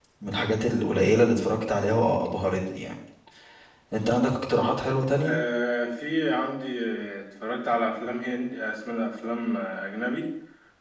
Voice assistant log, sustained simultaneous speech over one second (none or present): none